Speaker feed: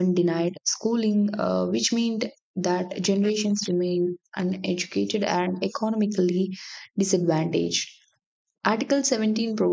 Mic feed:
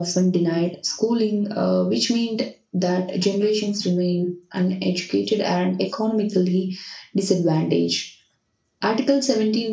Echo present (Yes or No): Yes